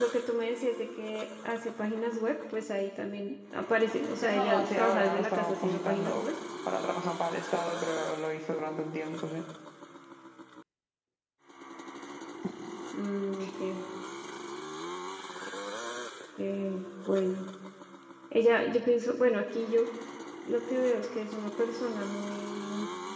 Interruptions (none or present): present